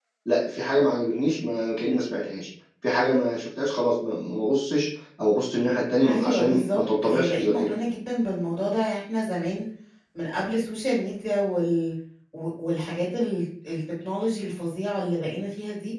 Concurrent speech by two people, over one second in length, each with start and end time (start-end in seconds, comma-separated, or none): 6.1-7.7